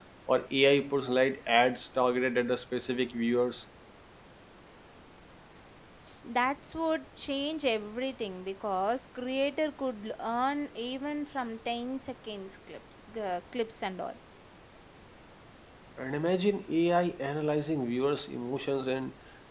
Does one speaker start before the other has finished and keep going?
No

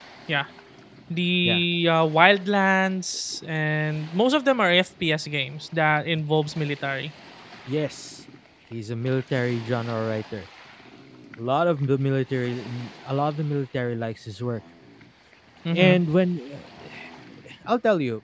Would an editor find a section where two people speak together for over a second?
No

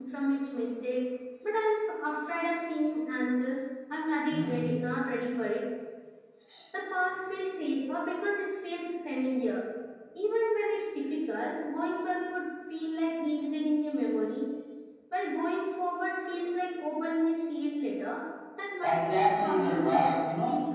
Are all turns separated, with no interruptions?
No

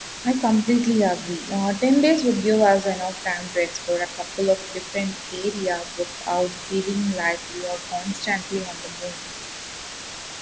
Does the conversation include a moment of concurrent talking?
No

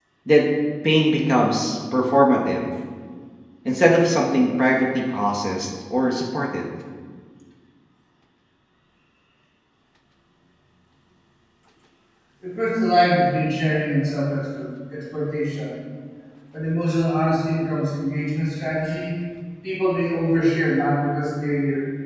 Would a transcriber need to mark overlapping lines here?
No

